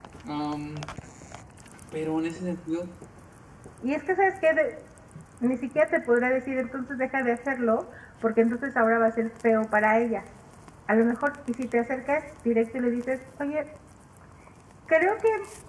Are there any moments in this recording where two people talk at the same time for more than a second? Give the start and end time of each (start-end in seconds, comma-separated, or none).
none